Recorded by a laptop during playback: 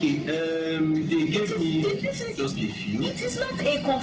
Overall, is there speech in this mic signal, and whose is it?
echo only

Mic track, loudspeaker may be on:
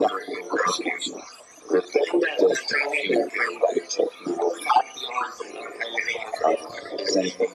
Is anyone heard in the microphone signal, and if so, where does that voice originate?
echo only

